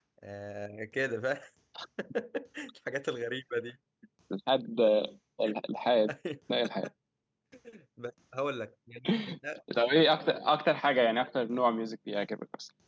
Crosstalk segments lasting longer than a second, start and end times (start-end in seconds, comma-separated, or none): none